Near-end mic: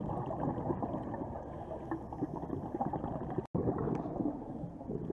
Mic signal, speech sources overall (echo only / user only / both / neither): neither